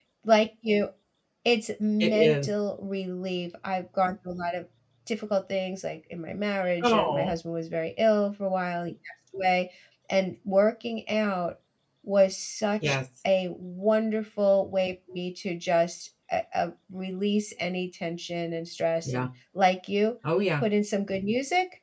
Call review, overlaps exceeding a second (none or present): none